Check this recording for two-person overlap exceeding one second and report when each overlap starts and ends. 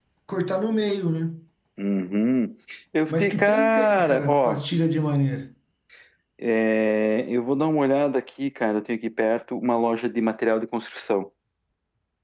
3.1-4.6

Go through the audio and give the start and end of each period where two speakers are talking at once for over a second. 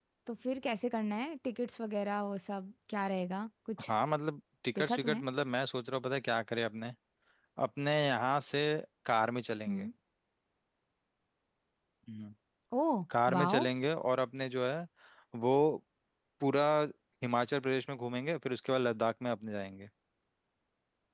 none

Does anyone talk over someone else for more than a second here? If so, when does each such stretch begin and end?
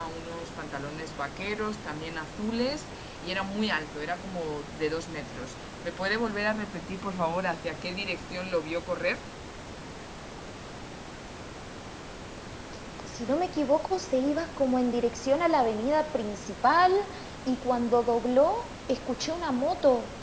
none

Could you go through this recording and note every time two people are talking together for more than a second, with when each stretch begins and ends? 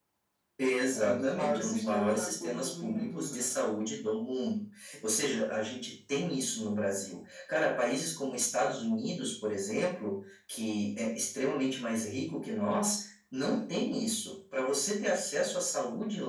0.9-3.6

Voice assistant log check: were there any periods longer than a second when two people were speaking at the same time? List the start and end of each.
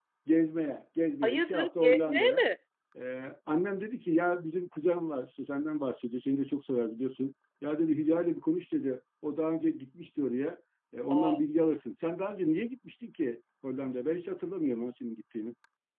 1.2-2.5

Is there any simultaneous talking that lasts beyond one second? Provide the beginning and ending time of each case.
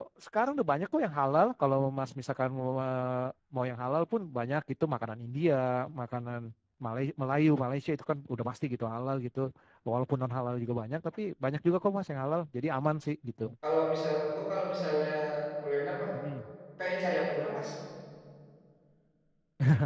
none

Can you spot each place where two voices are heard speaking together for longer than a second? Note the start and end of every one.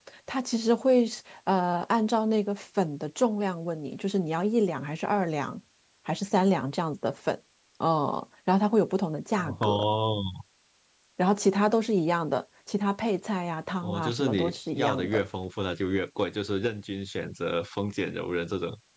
13.8-15.2

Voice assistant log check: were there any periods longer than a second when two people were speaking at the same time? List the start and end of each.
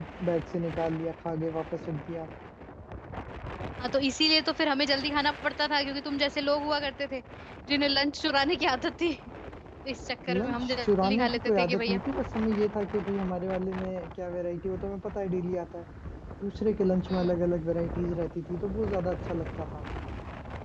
10.4-12.0

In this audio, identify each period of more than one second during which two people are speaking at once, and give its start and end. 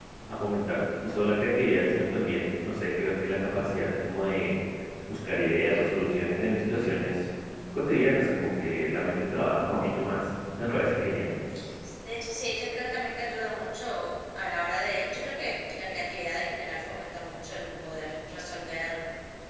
none

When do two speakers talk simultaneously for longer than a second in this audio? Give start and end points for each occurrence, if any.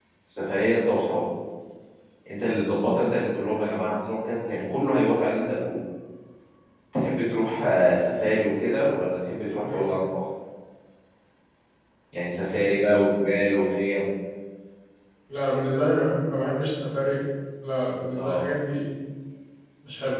none

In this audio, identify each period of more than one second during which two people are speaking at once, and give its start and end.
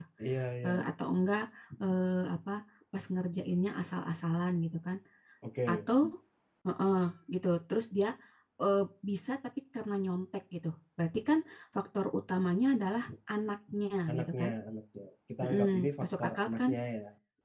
15.4-16.7

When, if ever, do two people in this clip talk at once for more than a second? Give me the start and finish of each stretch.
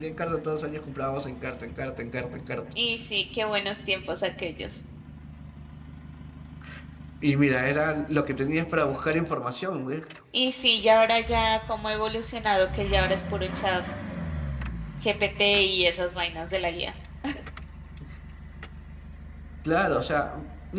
none

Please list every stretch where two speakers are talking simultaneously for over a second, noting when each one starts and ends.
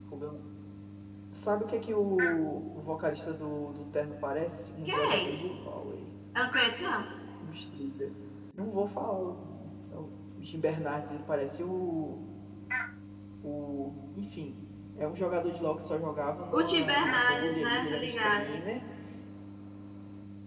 16.5-18.6

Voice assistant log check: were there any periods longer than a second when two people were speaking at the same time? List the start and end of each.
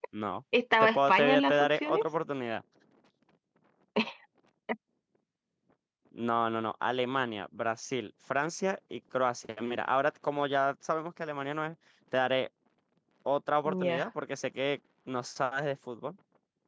0.8-2.1

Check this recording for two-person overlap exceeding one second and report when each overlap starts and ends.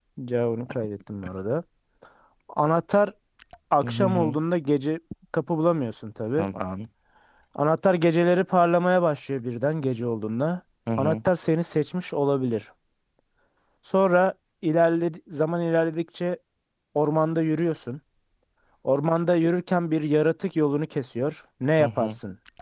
none

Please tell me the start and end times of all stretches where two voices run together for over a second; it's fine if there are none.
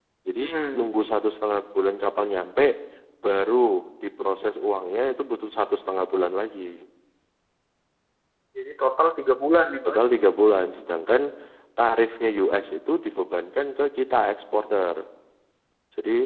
none

